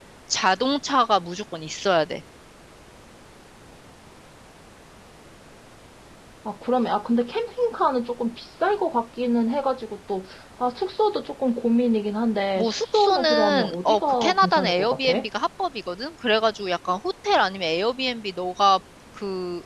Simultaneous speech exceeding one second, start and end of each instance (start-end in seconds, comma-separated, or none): 12.6-15.1